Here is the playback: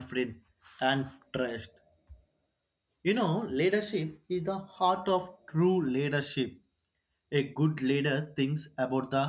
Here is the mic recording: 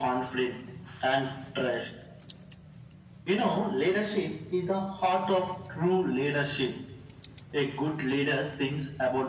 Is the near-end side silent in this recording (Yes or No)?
Yes